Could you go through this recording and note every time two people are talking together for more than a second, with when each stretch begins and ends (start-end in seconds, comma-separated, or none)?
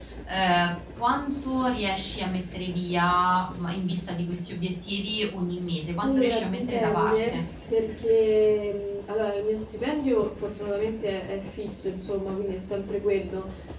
6.0-7.4